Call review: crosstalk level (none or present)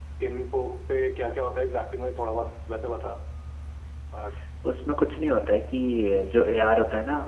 none